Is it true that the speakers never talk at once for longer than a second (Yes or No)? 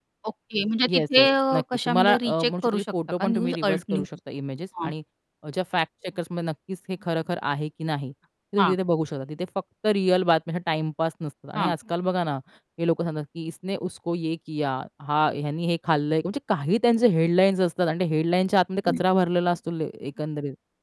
No